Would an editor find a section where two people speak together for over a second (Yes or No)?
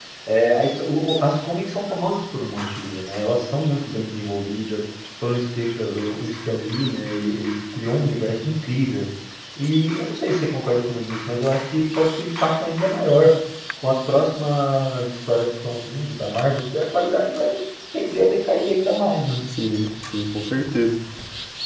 No